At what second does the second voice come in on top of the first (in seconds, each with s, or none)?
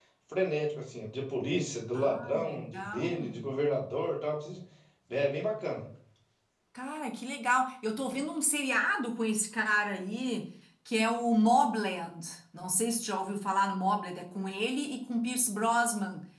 1.9 s